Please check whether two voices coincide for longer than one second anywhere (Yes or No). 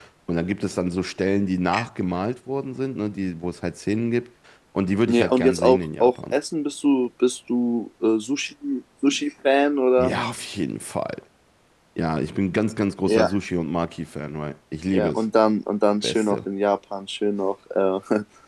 Yes